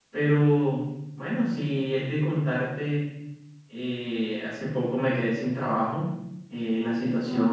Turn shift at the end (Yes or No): No